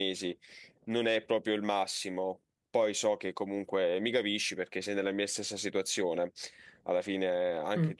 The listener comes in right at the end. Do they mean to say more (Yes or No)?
No